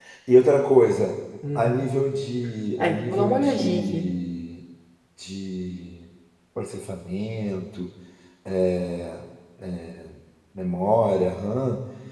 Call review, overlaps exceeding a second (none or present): present